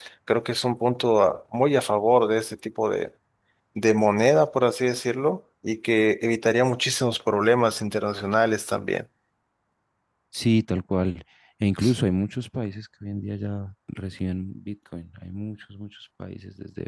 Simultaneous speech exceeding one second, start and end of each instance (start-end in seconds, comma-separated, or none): none